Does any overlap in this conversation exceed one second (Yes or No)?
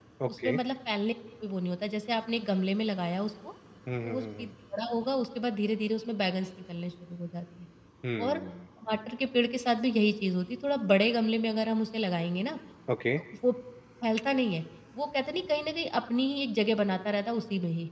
No